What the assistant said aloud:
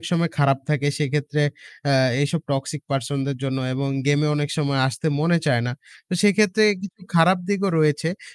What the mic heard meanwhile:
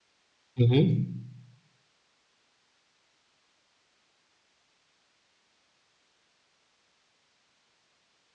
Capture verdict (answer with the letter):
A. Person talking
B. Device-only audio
A